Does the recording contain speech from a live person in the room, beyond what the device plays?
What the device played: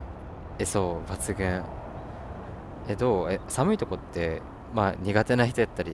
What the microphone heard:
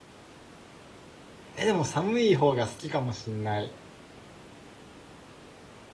Yes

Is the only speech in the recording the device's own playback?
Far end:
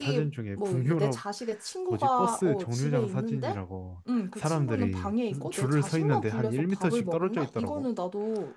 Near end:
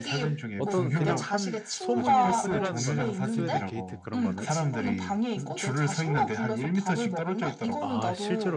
No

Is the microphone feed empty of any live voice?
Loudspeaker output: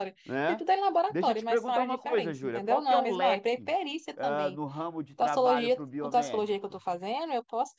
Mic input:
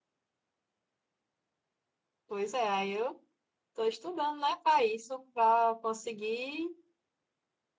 No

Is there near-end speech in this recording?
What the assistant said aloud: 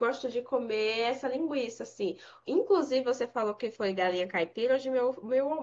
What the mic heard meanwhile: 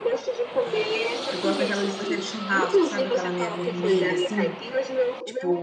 Yes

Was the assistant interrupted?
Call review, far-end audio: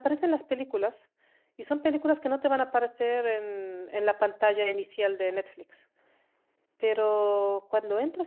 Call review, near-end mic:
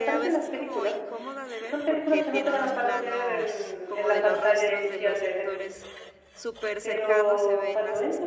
Yes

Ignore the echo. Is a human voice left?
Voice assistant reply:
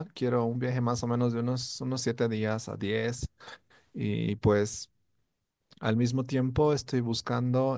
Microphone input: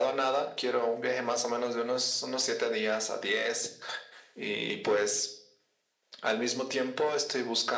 No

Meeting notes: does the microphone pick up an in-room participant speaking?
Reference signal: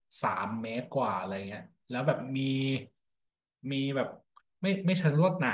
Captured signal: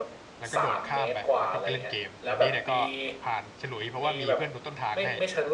Yes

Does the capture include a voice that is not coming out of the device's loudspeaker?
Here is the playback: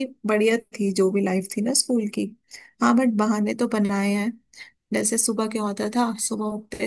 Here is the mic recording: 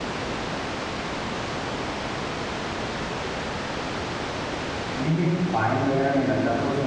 Yes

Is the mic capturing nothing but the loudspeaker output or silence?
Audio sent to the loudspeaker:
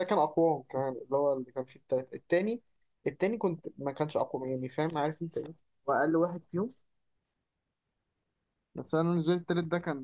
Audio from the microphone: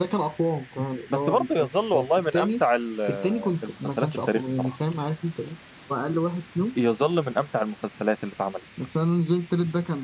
No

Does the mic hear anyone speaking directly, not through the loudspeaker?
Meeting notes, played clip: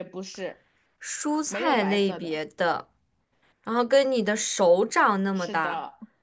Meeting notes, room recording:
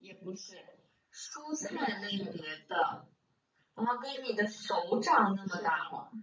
No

